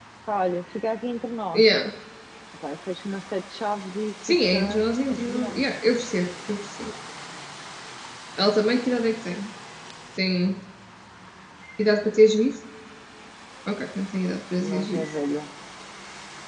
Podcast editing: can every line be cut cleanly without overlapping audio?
No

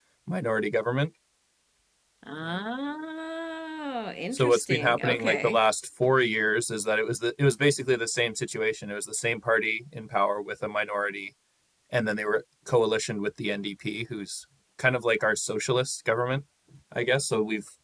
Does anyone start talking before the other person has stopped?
Yes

